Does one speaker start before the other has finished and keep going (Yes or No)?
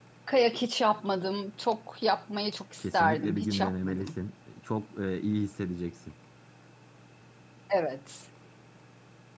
Yes